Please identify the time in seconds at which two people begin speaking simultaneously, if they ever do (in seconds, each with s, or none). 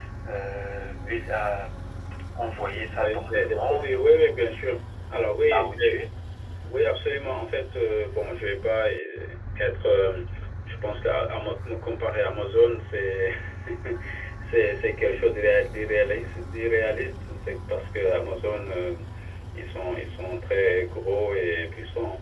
2.9 s